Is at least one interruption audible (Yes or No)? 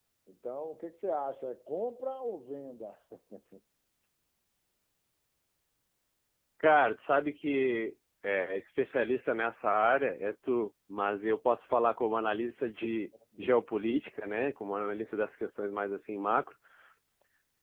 No